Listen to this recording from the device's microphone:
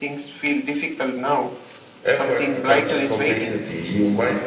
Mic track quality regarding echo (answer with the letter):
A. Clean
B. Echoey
B